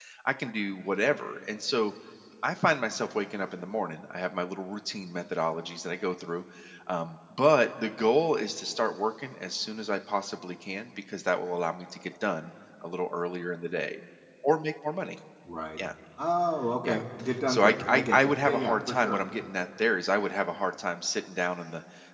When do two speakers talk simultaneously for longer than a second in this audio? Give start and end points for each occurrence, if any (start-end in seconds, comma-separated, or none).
17.5-19.2